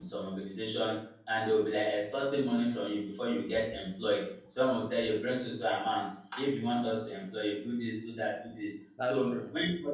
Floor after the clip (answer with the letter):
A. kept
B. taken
A